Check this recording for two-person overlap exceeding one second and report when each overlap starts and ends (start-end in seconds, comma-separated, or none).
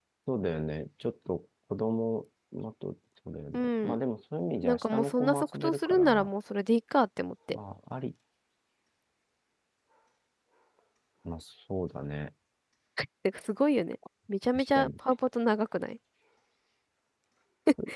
4.6-6.3